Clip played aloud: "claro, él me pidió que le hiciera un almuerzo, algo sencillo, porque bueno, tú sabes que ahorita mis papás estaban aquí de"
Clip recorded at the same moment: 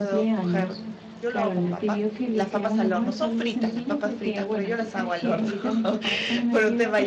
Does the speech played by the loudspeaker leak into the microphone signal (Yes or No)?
Yes